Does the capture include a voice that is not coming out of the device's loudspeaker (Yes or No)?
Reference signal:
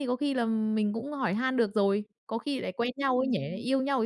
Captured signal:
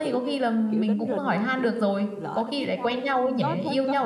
Yes